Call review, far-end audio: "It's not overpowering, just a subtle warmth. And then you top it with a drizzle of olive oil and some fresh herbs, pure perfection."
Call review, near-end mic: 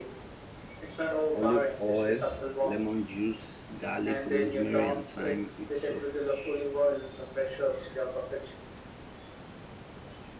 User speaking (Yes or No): Yes